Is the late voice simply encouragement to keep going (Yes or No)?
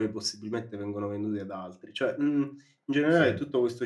Yes